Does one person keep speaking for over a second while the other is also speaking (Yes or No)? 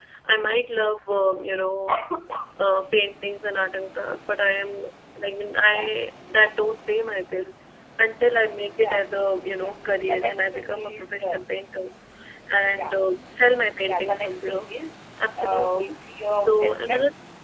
Yes